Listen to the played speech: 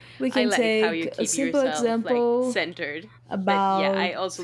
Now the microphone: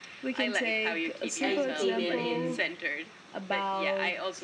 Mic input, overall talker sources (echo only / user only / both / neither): both